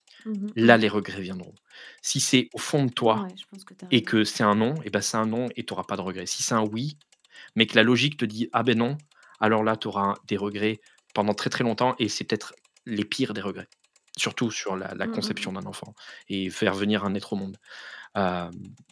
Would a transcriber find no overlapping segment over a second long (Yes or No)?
Yes